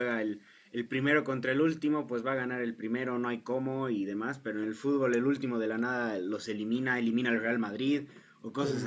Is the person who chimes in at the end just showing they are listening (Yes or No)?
No